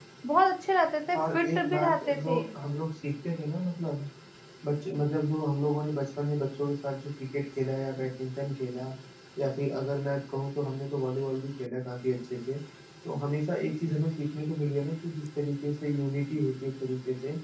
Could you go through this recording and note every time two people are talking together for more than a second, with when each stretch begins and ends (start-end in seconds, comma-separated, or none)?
1.2-2.4